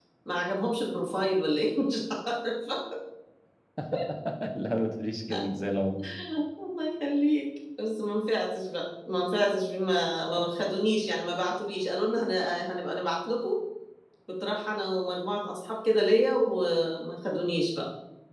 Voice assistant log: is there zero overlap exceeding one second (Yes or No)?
Yes